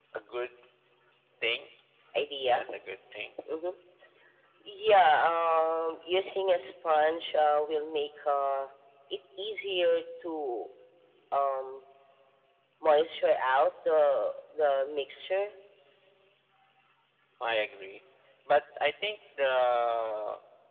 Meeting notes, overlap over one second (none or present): none